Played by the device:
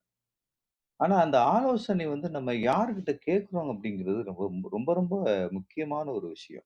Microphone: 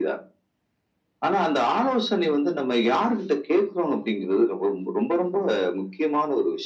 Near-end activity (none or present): none